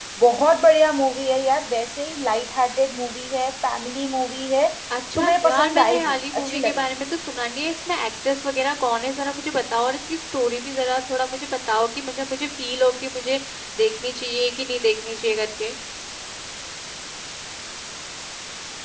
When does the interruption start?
5.2 s

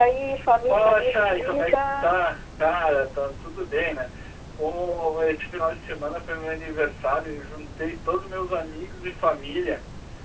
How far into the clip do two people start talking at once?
0.7 s

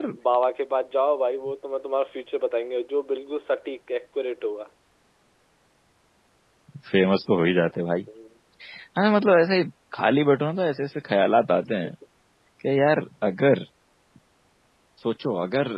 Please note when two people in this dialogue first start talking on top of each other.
none

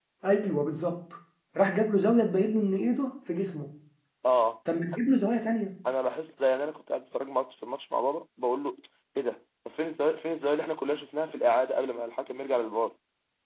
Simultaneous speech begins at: none

